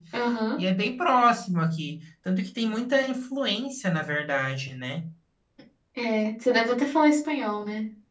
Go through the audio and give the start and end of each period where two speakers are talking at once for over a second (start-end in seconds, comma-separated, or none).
none